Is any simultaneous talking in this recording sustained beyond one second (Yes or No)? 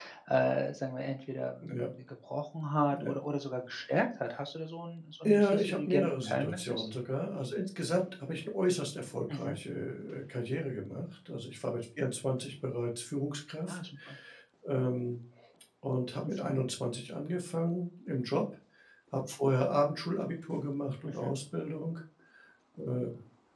Yes